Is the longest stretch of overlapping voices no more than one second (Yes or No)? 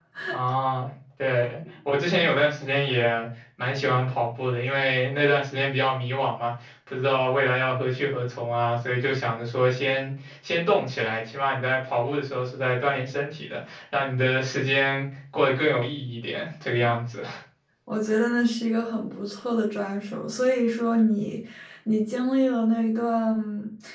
Yes